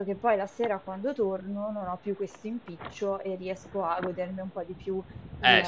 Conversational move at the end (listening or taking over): taking over